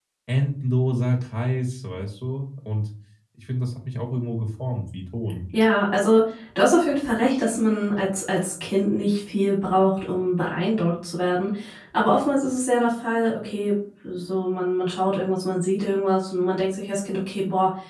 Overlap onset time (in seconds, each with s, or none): none